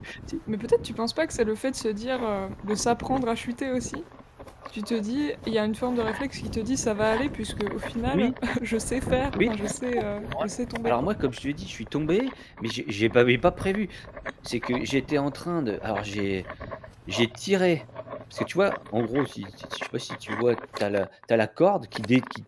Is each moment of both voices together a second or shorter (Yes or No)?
Yes